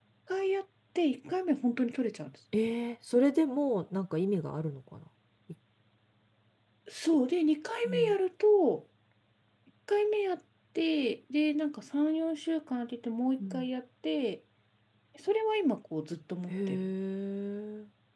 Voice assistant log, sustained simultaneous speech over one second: none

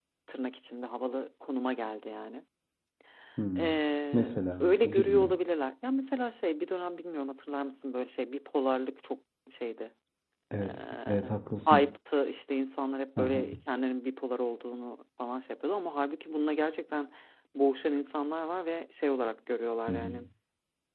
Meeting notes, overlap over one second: present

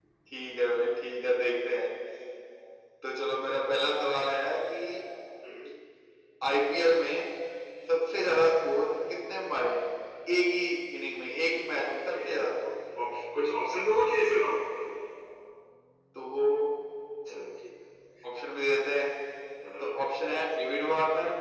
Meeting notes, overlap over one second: none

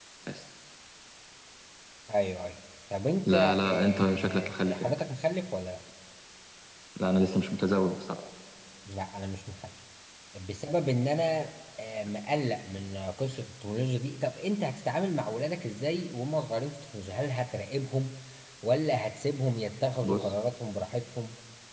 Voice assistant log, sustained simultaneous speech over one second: present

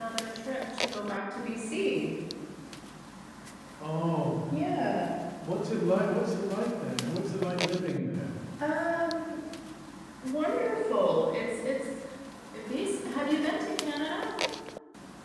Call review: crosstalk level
none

